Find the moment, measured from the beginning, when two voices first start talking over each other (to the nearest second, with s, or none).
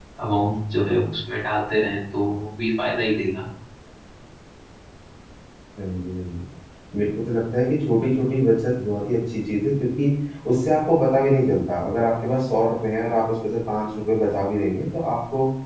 none